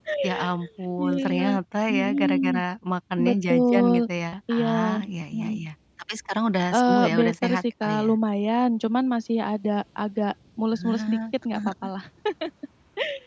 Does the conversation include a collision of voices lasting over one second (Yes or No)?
Yes